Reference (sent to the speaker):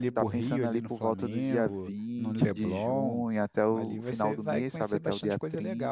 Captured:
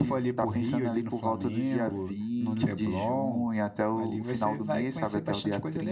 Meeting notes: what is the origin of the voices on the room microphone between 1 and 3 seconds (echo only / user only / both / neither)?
echo only